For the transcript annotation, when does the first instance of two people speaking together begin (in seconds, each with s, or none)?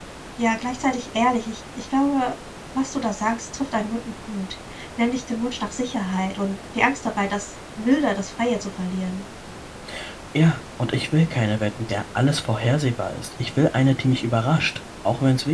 none